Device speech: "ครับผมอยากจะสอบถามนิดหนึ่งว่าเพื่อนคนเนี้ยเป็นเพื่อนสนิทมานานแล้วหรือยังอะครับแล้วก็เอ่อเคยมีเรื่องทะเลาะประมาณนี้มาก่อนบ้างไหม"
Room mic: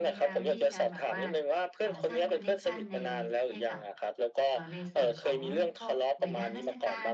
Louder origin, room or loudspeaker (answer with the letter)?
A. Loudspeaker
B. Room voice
A